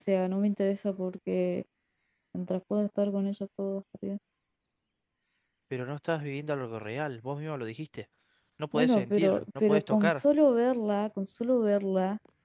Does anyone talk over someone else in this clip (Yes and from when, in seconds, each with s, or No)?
Yes, from 8.7 s